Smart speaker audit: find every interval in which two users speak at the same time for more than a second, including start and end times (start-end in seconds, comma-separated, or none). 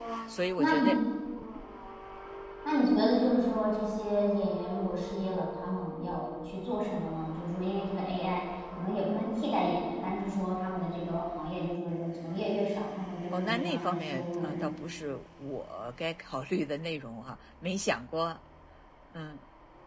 13.3-14.6